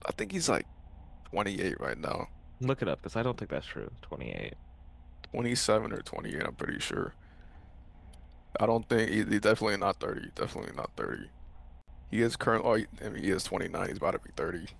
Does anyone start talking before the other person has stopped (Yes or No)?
No